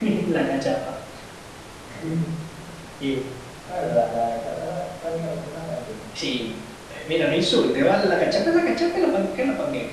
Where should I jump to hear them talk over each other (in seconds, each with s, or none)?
none